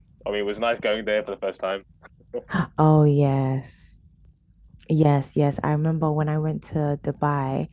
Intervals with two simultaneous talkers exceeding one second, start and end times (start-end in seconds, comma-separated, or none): none